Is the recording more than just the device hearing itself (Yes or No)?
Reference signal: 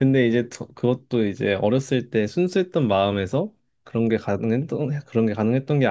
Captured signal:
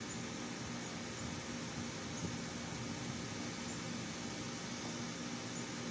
No